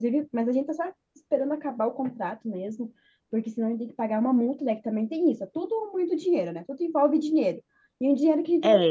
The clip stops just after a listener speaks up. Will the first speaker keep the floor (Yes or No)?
No